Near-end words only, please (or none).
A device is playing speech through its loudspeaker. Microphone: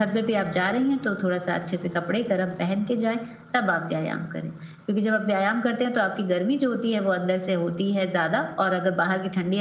none